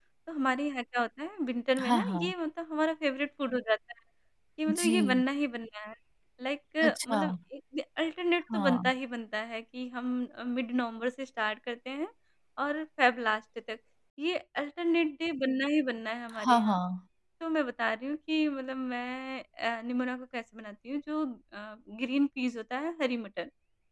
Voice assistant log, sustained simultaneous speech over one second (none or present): none